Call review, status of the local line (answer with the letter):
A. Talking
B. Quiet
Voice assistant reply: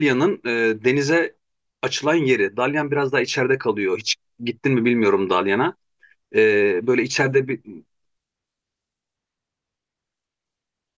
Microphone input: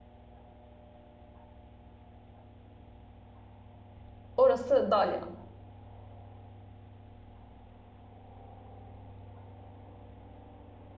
A